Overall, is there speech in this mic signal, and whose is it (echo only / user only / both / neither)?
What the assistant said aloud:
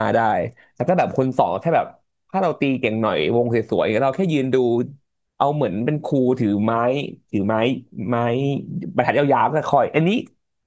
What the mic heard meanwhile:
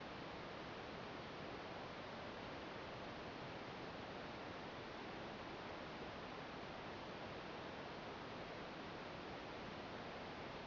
neither